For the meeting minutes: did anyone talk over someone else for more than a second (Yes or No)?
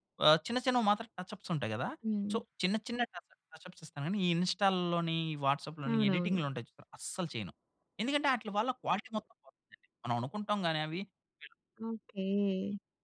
No